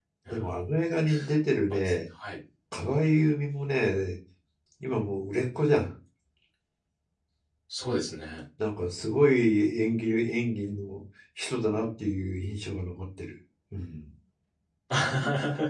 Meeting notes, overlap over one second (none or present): none